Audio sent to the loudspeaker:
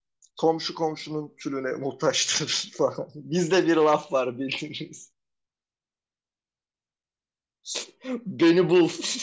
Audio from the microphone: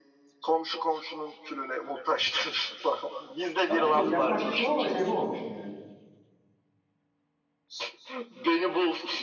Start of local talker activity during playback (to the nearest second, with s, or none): 4 s